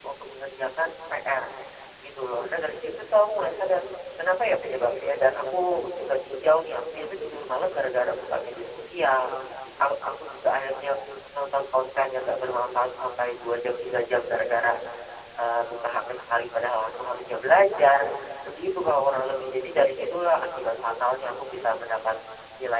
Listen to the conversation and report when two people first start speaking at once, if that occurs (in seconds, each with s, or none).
none